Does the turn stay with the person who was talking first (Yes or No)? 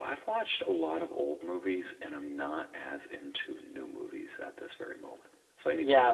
No